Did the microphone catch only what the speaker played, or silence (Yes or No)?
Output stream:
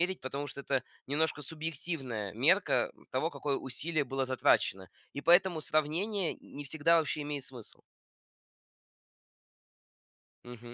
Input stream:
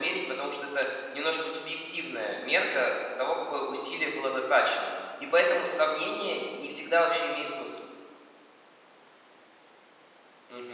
Yes